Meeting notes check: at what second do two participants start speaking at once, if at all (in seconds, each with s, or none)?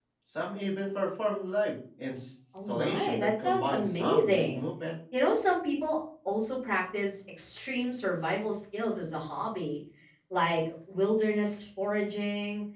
2.5 s